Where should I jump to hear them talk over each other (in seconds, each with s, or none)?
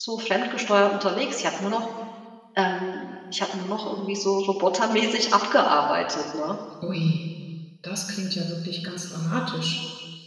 none